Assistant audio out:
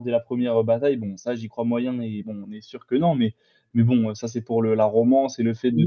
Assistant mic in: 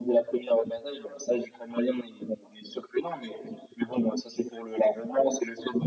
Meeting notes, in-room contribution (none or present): none